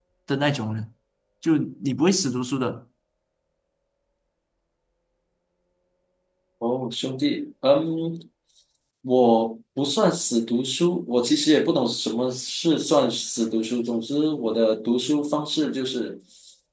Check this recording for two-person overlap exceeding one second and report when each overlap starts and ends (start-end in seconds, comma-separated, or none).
none